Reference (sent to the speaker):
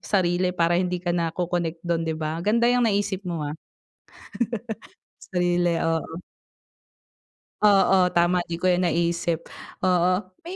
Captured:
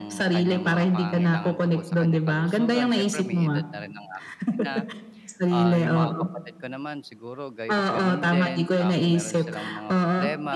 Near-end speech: present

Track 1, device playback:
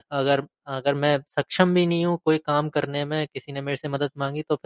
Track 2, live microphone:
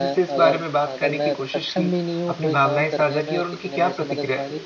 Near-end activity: present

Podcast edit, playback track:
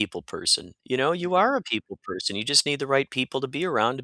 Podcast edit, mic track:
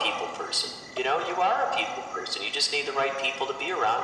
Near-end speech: none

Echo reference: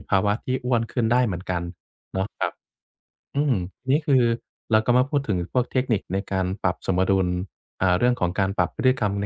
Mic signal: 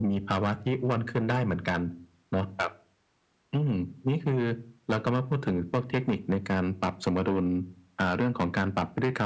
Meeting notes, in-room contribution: none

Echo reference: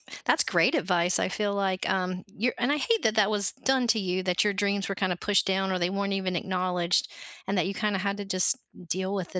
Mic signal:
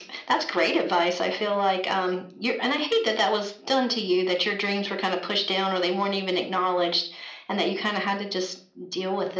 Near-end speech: none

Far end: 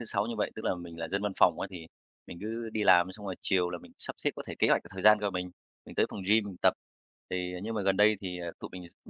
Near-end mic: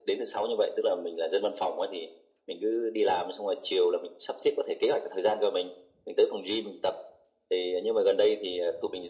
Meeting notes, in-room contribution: none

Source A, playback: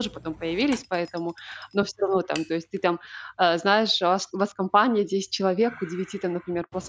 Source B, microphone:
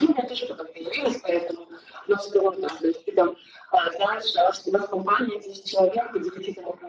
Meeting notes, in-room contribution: none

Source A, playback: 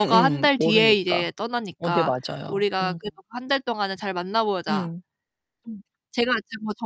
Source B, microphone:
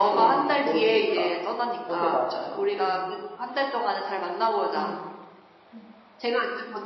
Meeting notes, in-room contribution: none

